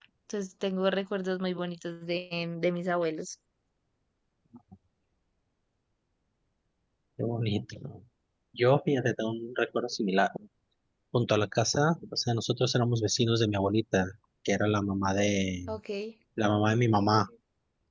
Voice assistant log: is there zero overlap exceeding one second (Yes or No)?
Yes